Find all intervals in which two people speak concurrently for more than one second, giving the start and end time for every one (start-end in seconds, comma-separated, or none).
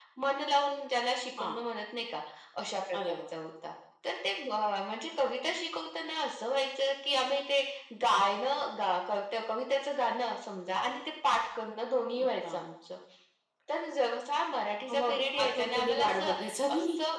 14.9-16.3